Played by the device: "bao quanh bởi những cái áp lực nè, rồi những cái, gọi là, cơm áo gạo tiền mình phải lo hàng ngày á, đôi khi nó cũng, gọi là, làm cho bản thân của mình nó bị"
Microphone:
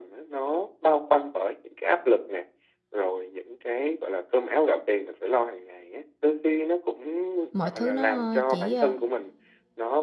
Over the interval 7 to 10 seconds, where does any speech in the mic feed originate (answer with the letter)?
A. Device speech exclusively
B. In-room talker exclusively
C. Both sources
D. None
C